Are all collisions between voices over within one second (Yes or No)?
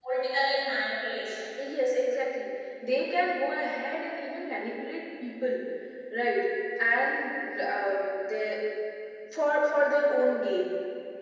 Yes